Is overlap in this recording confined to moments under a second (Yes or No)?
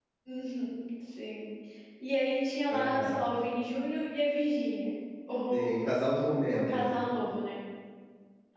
Yes